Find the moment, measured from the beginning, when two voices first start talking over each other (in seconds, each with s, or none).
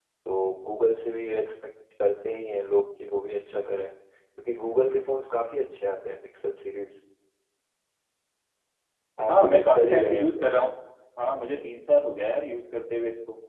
9.3 s